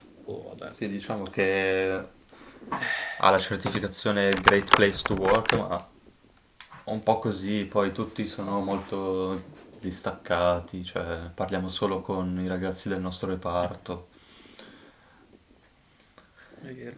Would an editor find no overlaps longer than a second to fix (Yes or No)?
Yes